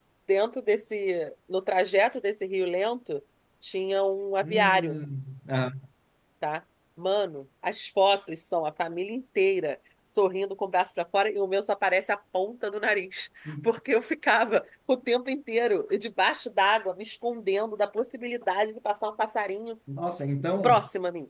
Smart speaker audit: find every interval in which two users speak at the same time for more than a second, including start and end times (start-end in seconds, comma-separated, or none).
none